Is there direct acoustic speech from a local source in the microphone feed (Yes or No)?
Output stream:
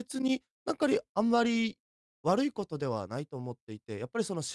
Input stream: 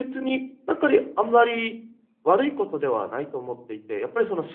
No